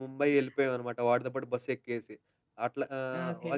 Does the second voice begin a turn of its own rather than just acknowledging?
No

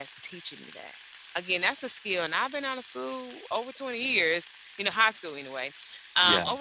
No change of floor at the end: Yes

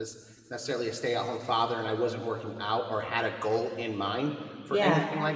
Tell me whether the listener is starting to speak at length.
No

